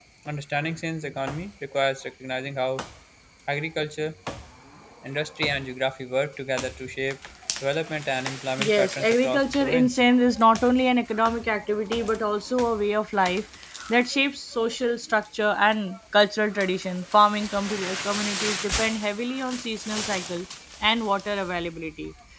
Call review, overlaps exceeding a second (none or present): present